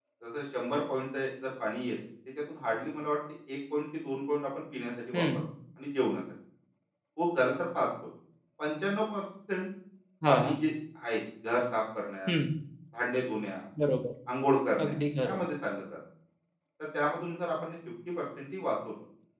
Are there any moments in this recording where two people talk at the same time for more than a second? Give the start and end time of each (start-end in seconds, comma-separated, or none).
none